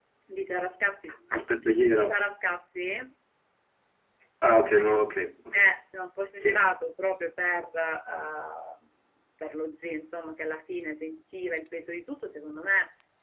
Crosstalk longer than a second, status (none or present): none